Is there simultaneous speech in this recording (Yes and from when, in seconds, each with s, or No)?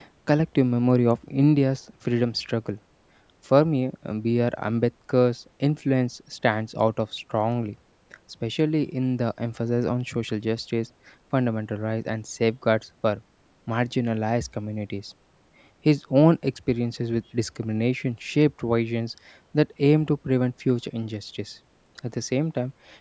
No